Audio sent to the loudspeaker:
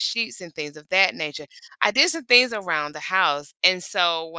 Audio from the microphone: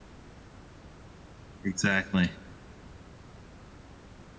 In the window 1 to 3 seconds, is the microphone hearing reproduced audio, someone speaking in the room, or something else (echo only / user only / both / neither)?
user only